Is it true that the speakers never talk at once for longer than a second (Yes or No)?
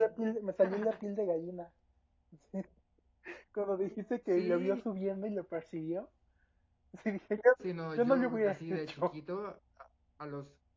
No